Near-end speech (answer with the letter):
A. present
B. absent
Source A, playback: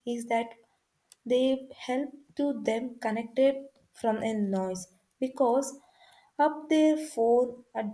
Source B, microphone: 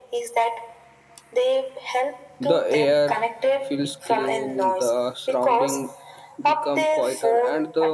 A